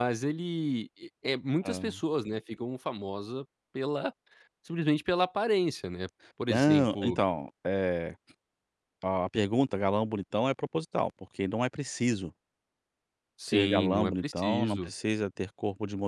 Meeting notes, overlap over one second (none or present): present